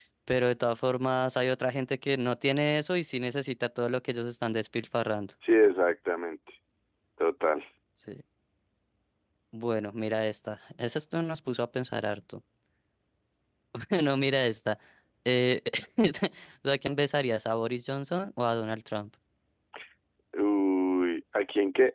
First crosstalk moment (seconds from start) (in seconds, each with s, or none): none